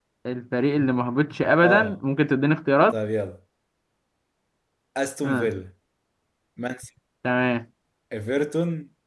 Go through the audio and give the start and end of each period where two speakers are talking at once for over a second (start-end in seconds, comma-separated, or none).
none